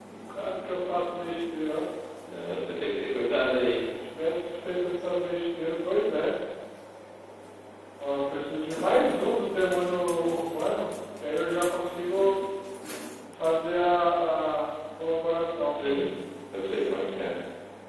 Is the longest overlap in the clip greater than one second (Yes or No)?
No